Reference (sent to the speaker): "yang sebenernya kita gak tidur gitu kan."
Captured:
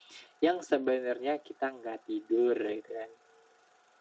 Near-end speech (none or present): none